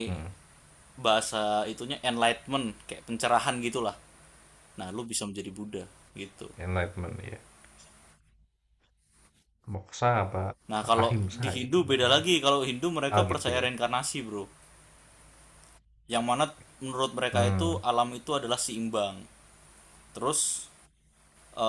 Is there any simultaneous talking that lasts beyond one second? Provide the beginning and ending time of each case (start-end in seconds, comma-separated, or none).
11.0-12.2